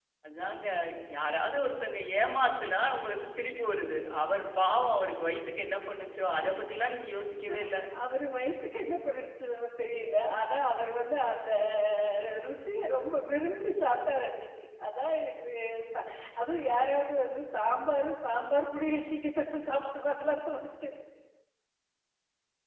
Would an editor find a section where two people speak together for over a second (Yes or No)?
No